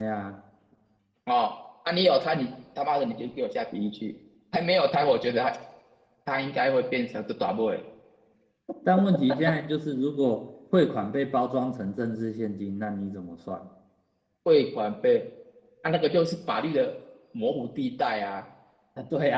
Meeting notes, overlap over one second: none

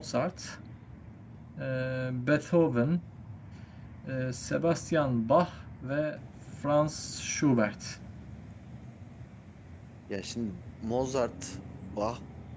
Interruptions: none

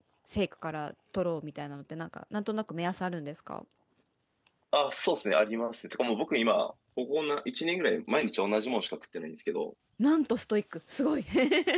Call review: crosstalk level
none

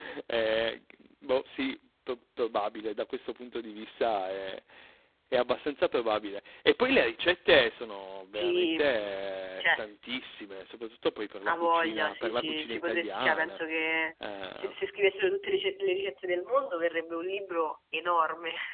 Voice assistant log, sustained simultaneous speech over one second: present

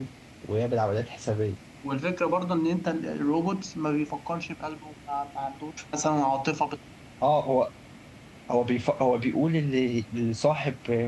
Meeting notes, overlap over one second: none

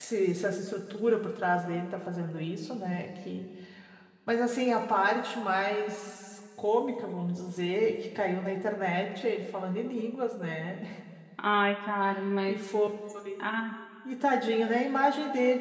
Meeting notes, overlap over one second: none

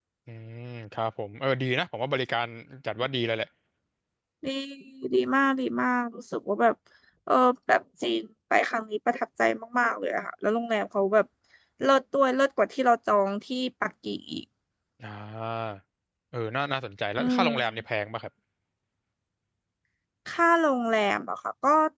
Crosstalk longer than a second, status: none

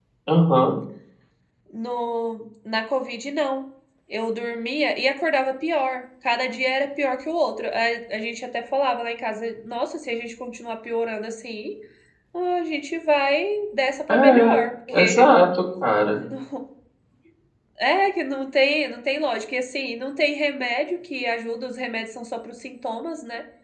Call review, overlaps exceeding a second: none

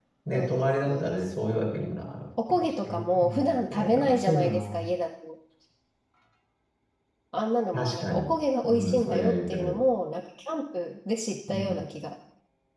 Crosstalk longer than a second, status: present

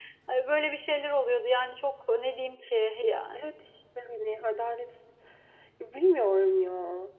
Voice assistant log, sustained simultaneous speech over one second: none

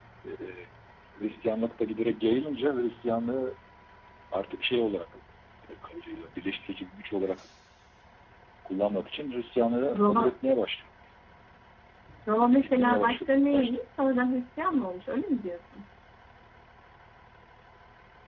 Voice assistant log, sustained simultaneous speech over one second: present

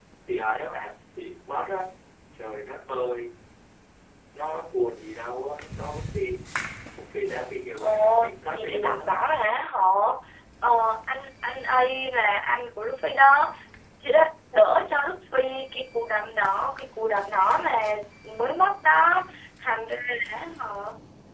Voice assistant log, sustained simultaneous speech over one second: present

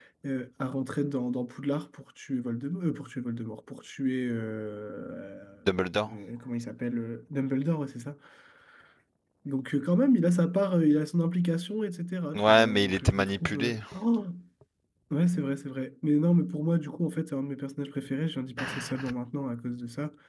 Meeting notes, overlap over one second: present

